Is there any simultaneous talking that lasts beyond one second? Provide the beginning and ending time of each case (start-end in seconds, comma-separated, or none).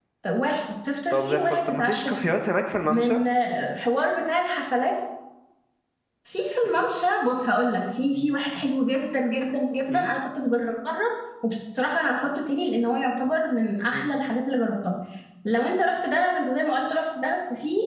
1.1-2.3